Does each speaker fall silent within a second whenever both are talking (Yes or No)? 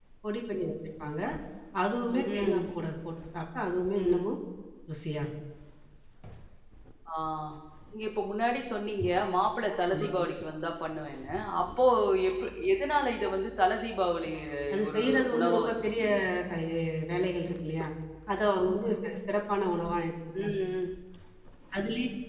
No